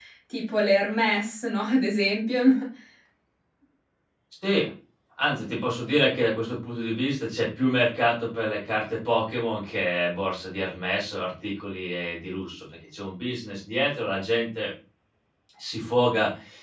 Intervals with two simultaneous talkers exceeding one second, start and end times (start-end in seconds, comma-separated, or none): none